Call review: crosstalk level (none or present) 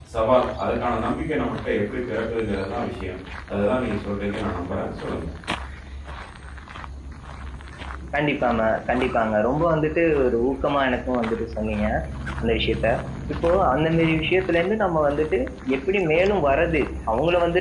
none